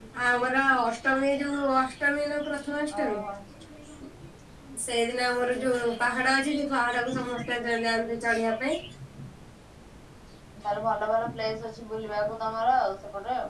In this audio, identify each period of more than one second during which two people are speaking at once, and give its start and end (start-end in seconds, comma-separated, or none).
none